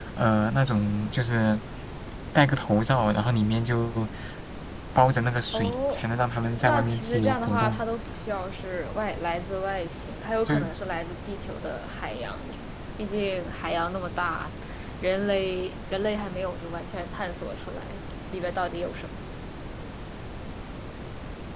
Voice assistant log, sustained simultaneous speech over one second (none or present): present